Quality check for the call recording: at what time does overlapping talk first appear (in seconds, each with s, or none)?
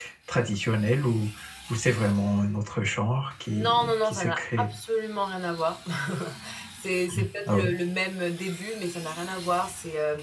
3.5 s